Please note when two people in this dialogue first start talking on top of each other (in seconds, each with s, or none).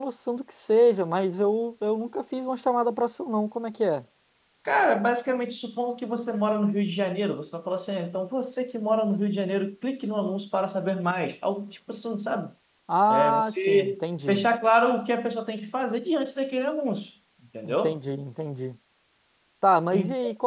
13.1 s